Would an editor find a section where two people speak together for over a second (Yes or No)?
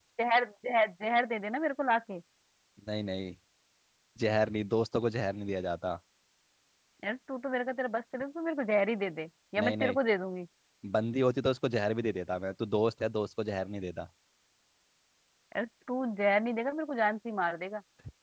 No